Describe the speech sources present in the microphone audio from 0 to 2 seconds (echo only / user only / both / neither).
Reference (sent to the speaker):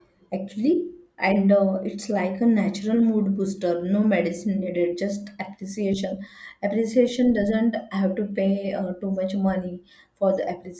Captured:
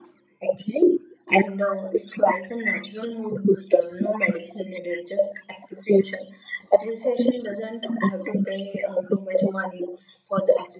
echo only